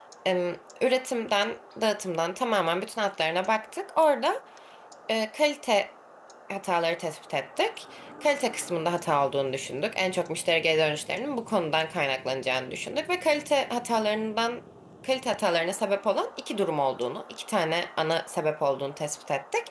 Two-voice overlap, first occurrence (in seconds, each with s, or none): none